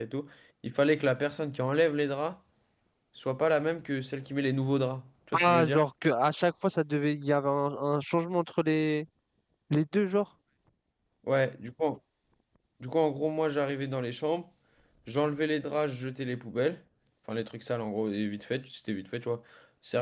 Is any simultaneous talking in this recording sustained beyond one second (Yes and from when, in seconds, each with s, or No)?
No